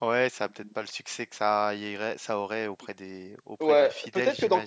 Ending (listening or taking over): taking over